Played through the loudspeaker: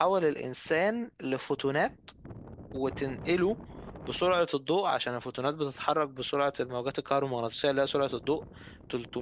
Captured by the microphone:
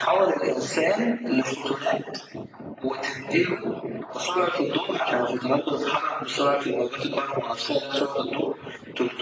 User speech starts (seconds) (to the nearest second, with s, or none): none